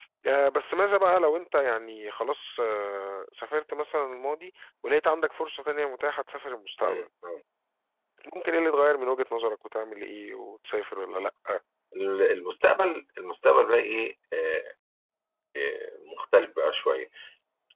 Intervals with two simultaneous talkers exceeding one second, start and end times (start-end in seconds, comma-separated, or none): none